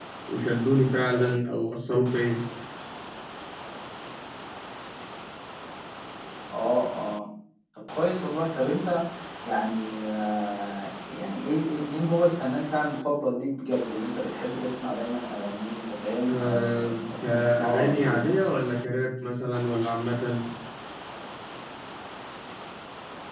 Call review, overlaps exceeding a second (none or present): present